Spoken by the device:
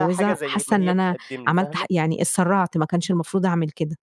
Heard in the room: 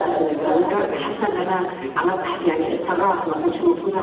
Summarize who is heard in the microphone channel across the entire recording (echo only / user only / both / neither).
both